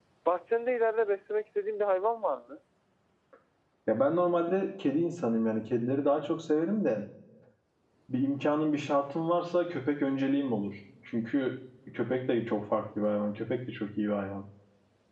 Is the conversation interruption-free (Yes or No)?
Yes